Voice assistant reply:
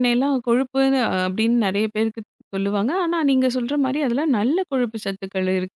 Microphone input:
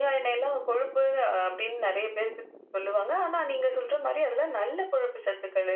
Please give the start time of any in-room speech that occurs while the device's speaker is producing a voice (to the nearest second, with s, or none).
none